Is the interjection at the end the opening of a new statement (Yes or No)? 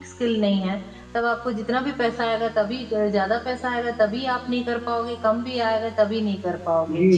Yes